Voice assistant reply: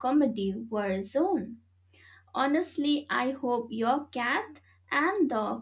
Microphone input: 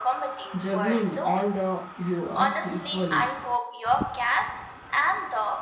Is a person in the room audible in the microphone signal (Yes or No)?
Yes